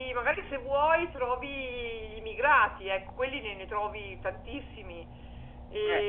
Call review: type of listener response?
listening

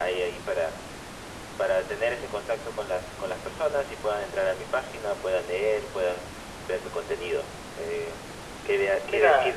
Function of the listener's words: listening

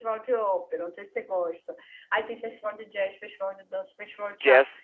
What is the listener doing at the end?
listening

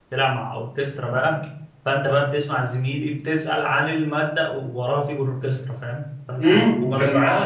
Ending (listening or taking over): taking over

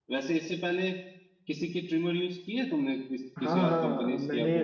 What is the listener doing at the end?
taking over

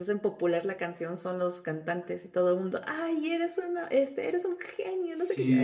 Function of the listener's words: taking over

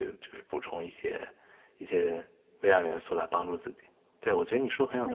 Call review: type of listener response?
listening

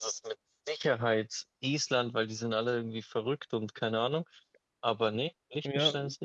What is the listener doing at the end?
taking over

